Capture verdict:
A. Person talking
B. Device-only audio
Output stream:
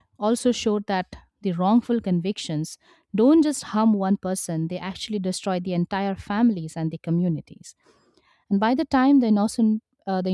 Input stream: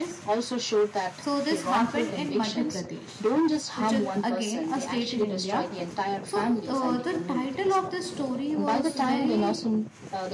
A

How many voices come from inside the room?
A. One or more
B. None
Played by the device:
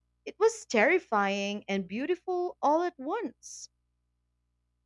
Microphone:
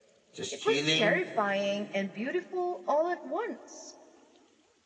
A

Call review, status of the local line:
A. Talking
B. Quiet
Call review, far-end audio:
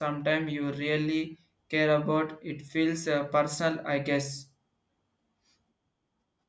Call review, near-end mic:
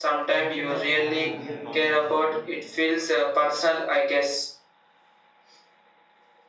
A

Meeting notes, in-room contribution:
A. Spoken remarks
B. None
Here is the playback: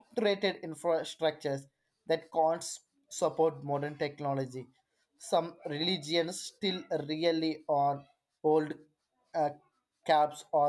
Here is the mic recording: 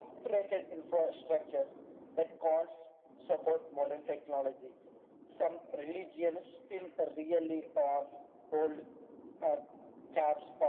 B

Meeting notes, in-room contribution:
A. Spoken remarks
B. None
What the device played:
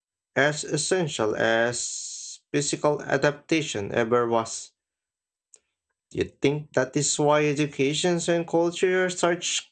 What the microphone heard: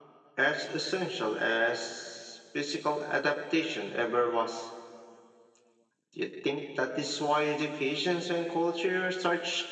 B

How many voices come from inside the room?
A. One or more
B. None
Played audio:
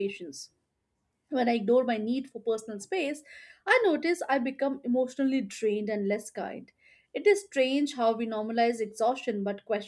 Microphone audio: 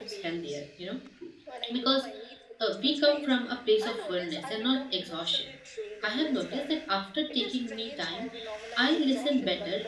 A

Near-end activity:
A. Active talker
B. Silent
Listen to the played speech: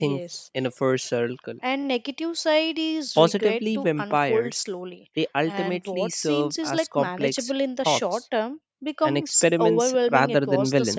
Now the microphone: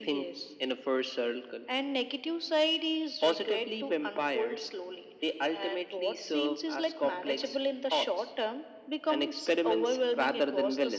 B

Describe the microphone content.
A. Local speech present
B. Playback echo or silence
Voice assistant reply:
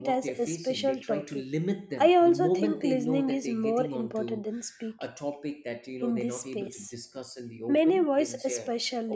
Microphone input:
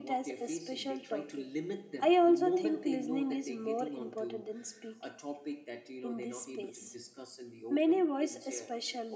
B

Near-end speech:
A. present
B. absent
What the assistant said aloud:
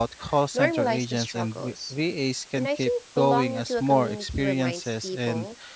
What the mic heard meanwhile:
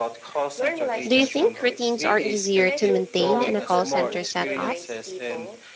A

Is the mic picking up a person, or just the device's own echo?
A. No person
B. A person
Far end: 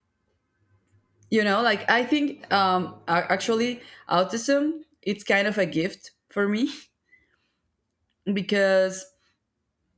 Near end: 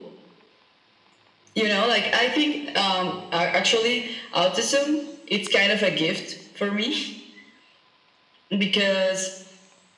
A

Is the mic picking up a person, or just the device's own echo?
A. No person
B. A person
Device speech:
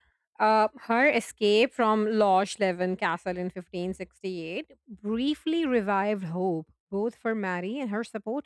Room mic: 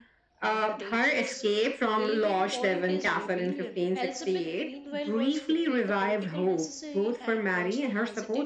B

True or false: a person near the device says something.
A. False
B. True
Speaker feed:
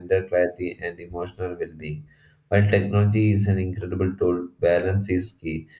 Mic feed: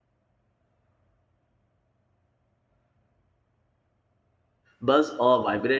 B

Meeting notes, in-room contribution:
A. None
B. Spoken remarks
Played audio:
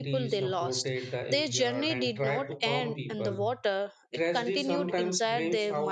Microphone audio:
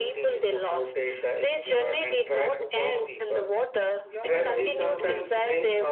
B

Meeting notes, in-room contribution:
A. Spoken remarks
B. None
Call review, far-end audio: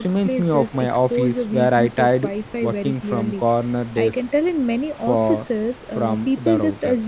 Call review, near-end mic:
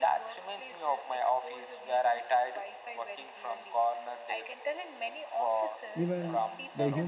A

